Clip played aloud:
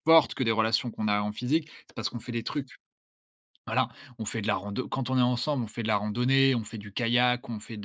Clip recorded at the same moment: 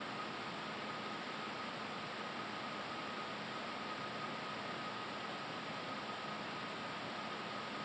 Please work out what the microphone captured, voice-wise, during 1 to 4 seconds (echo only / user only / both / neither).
neither